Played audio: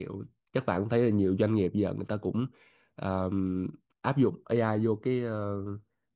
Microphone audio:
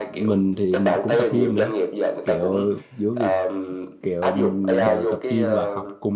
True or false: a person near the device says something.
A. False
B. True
B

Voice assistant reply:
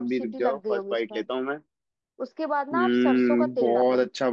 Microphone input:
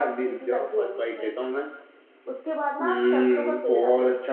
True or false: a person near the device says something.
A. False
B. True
A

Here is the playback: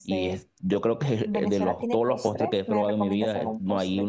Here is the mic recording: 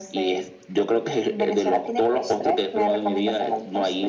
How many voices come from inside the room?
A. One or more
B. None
B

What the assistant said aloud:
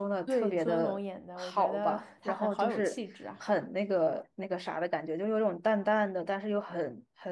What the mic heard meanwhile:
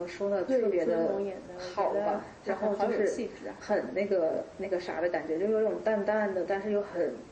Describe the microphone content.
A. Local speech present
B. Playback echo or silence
B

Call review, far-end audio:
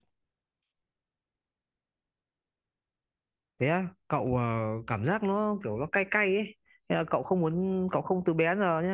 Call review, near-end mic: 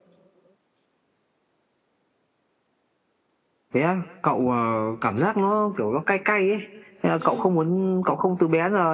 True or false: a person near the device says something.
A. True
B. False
A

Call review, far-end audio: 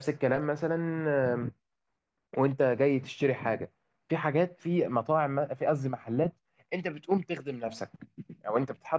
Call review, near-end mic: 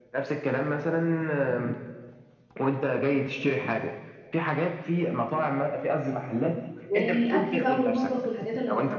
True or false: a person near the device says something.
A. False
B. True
B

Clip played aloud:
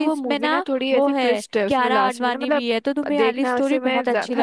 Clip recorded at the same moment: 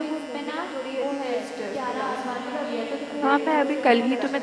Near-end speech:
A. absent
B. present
B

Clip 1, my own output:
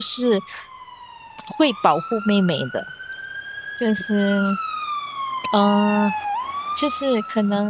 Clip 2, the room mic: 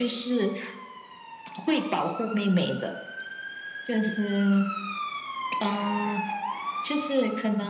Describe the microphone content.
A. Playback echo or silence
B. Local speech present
A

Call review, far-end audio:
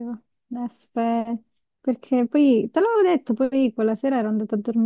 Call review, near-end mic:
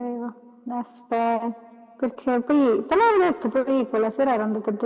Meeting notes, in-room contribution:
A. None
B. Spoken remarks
A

